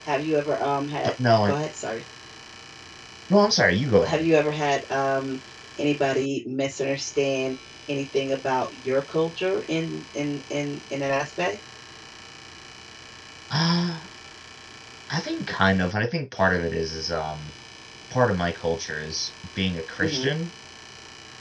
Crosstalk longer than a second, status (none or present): none